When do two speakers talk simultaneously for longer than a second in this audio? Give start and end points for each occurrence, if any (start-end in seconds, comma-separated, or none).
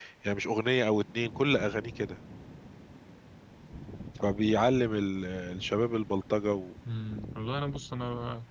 none